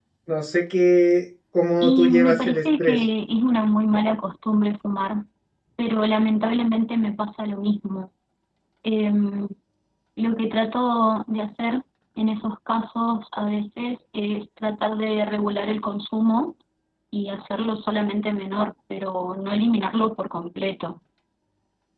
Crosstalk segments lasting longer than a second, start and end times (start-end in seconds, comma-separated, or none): 1.8-3.0